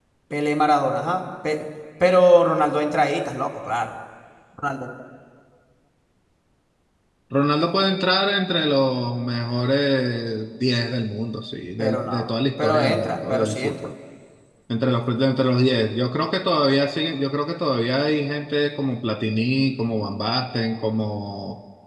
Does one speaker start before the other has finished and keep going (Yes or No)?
Yes